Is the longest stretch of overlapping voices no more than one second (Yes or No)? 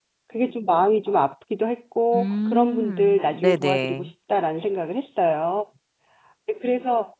No